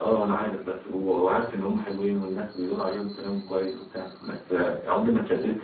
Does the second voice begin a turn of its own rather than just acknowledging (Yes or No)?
No